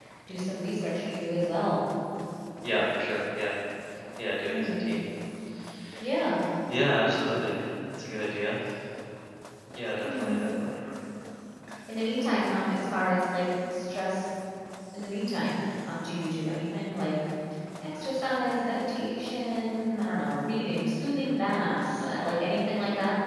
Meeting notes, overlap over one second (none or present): none